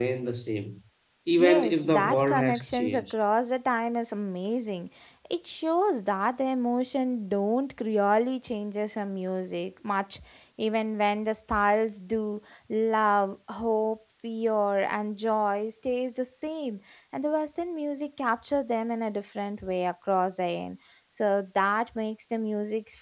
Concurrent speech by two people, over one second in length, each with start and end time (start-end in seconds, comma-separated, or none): 1.4-3.1